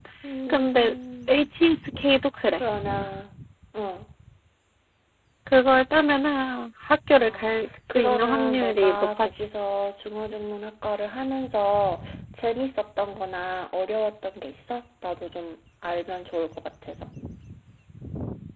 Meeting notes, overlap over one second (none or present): present